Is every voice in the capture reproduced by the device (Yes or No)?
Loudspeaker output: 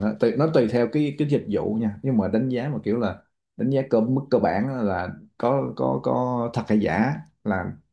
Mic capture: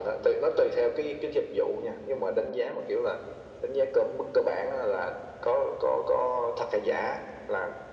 Yes